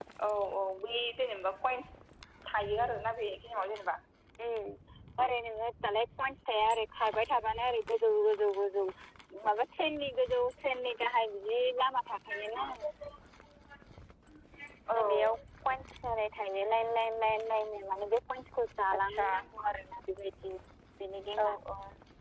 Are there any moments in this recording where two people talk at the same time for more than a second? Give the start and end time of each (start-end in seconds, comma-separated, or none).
none